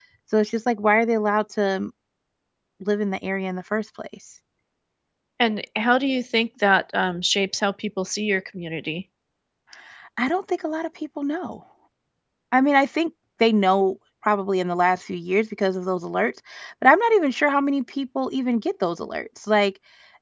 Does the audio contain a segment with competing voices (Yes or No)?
No